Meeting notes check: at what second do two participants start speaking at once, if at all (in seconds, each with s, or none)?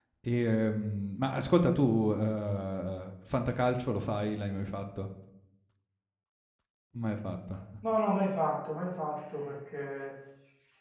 none